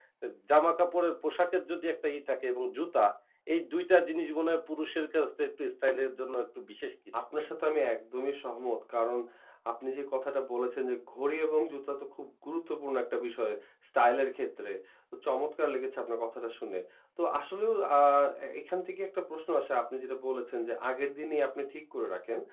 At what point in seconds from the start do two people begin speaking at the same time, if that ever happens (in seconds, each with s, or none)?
none